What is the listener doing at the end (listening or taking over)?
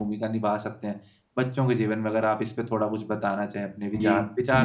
taking over